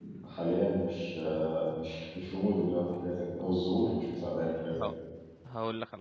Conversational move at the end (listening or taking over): taking over